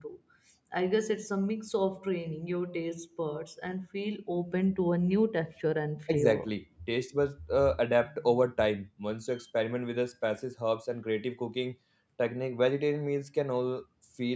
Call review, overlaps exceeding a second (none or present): none